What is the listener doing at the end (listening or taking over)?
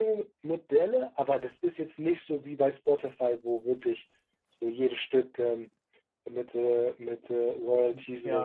taking over